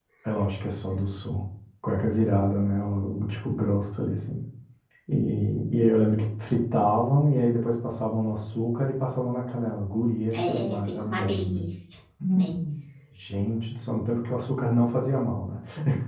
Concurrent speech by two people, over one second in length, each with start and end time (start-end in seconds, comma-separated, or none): 10.3-11.7